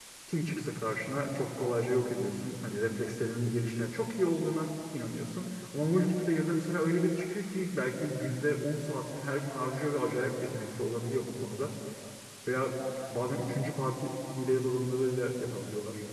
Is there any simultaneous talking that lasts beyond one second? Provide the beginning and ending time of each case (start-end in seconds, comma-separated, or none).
none